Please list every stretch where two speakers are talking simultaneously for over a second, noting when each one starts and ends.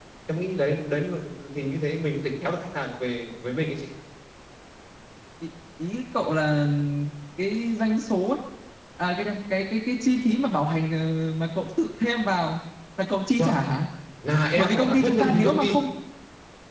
14.6-15.8

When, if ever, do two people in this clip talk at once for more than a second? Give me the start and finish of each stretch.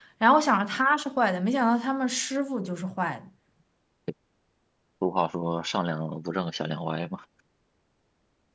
none

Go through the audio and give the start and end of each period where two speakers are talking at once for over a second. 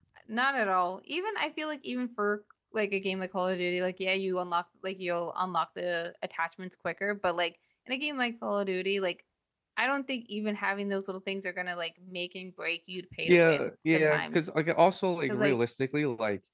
13.2-14.4

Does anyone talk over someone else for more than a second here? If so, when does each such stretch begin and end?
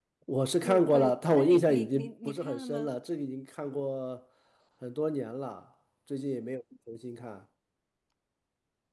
0.6-2.9

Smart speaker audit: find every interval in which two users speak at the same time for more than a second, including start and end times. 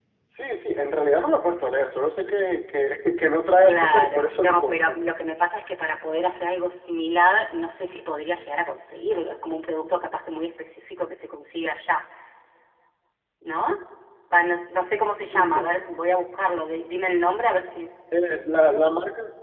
3.6-5.0

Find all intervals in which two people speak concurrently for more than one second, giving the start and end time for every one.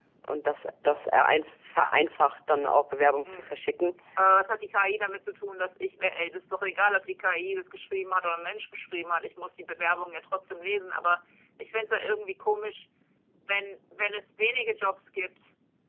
none

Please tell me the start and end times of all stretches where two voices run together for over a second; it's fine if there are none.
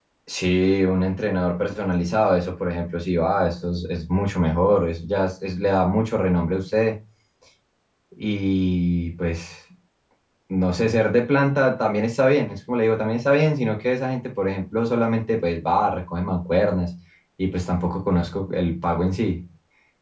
none

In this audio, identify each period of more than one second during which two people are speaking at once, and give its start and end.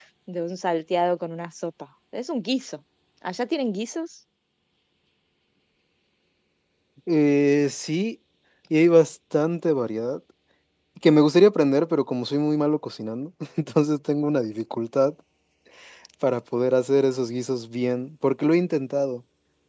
none

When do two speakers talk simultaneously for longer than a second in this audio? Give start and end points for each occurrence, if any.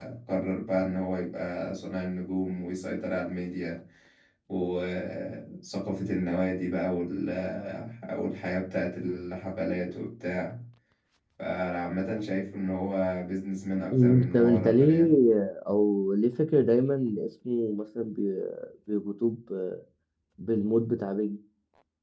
13.9-15.1

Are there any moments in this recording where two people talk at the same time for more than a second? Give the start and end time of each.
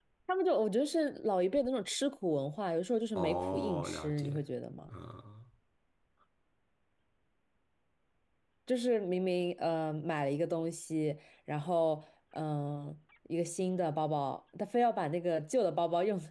3.1-4.4

